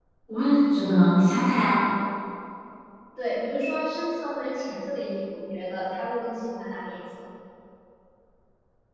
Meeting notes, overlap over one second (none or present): none